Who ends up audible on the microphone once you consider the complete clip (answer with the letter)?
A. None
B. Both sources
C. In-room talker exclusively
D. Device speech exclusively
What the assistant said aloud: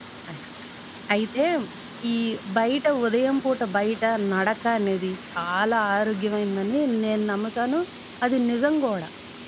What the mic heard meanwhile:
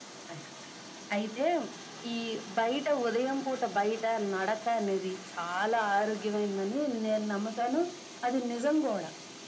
D